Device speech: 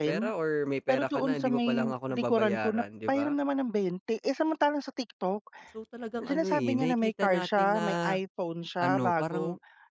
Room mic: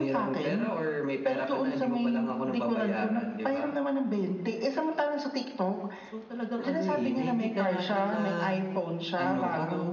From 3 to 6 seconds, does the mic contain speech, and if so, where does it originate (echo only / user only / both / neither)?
echo only